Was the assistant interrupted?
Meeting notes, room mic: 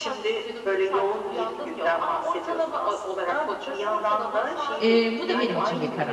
Yes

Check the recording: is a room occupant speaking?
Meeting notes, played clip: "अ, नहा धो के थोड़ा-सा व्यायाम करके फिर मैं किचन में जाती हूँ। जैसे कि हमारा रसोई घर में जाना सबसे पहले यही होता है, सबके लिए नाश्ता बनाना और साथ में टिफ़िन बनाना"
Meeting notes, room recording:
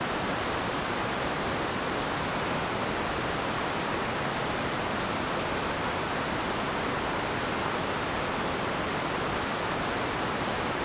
No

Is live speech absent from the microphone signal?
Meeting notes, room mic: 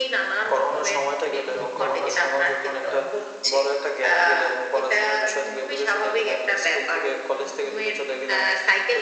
No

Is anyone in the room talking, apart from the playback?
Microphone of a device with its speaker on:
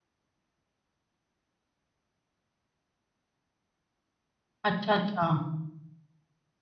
Yes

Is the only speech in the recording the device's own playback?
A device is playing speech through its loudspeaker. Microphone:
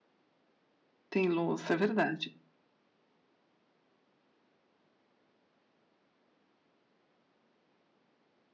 No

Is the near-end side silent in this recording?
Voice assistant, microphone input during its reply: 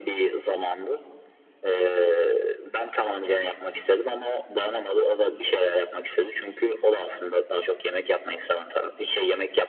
Yes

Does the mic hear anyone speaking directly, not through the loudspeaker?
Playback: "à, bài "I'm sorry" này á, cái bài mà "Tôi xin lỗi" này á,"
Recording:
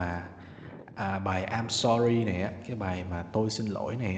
No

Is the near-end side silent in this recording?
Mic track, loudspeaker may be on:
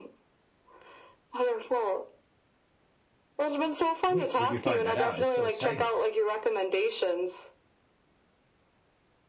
No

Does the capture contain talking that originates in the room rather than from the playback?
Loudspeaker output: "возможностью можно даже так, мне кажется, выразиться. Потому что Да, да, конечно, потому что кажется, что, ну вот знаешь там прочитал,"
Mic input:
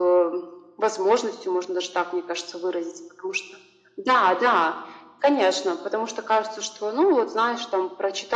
No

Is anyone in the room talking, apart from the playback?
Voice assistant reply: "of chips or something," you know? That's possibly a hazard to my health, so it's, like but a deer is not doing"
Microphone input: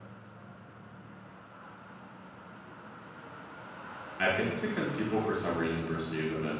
Yes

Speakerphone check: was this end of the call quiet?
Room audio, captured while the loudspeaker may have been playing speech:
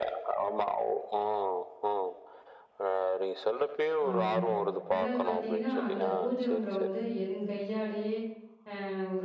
No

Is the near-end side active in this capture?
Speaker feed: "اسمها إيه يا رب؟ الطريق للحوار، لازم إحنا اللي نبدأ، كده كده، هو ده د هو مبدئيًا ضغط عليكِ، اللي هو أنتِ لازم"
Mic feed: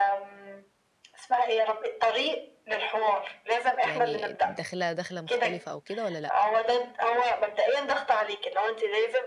Yes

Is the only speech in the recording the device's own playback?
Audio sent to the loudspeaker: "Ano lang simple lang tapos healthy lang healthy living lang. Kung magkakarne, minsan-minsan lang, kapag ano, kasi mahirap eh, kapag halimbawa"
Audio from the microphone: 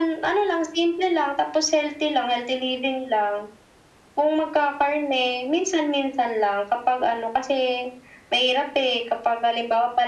Yes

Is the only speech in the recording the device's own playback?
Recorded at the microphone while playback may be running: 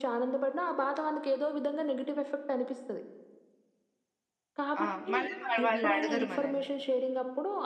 No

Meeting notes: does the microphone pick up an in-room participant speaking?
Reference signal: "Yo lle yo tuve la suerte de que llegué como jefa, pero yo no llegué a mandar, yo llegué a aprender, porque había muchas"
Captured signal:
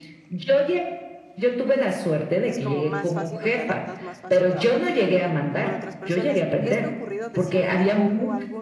Yes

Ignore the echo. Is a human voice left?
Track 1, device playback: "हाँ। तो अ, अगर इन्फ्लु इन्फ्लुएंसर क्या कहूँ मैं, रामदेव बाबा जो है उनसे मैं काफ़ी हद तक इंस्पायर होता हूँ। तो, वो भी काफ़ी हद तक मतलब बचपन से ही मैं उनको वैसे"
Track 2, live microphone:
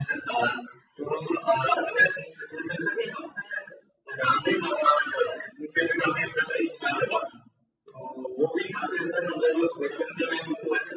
No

